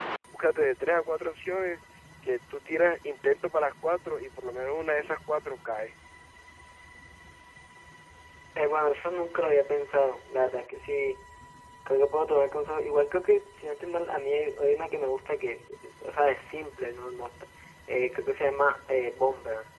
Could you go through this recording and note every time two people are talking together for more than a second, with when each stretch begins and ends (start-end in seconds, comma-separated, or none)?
none